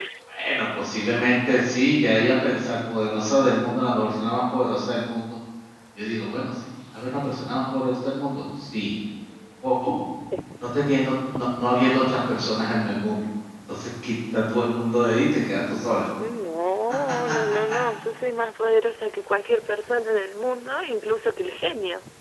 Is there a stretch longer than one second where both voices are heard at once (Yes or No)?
No